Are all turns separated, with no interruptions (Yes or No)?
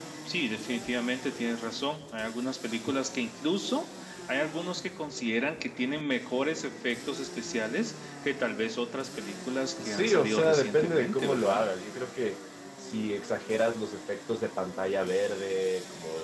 No